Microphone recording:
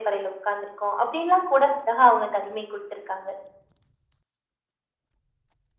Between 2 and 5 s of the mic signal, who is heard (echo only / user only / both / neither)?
echo only